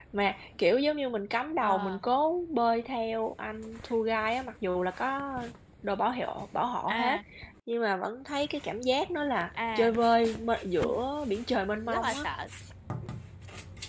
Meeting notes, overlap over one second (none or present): none